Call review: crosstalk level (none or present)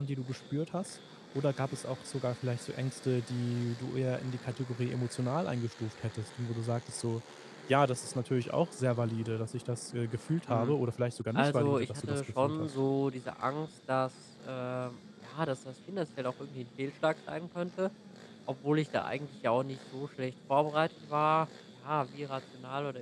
present